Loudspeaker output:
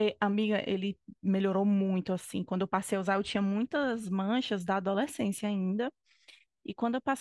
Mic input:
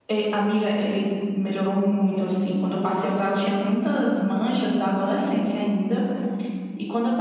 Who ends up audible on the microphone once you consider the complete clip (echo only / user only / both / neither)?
echo only